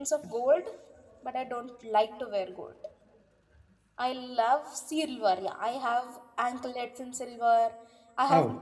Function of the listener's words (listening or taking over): listening